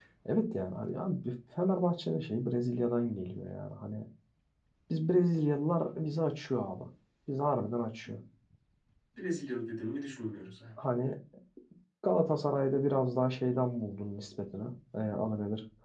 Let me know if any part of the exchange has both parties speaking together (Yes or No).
No